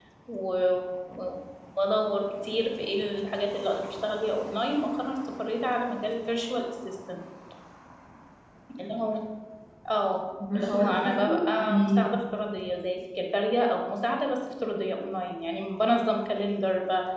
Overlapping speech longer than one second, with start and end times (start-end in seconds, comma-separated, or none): 10.5-12.1